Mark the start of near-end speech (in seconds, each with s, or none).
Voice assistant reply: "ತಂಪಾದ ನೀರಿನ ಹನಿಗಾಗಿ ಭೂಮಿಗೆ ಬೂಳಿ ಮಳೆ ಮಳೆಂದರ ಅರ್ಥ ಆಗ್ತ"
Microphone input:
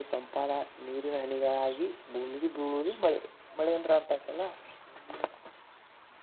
none